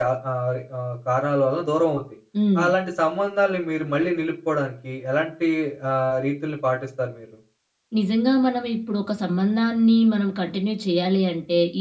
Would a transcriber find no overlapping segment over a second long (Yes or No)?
Yes